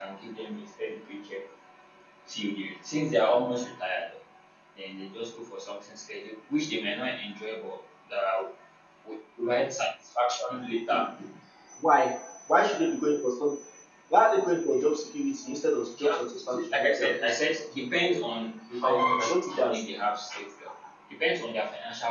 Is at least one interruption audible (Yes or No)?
Yes